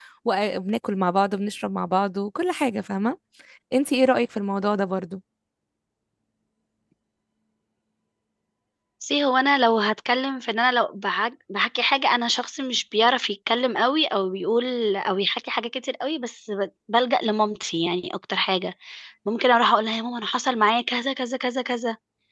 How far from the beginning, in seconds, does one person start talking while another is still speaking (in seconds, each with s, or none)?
none